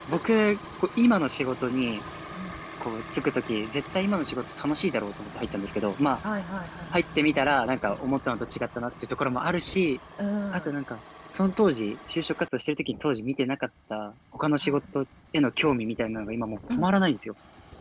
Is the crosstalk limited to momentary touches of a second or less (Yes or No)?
Yes